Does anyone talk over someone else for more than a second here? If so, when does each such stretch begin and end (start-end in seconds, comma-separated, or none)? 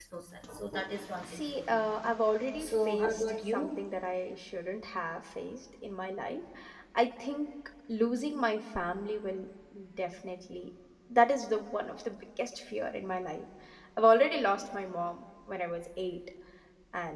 2.6-3.9